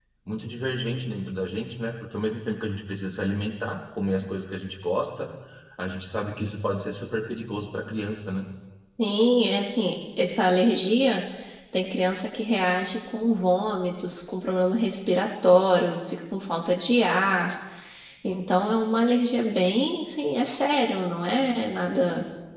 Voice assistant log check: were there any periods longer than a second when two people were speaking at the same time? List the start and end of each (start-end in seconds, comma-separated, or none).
none